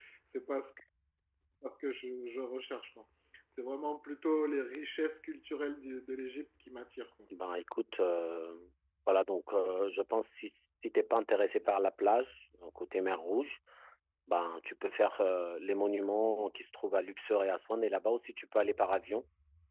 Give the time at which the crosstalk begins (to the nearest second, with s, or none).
none